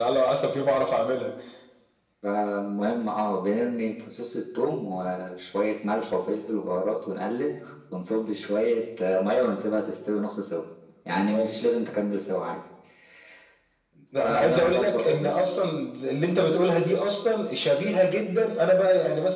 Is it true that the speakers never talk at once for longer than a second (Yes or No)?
No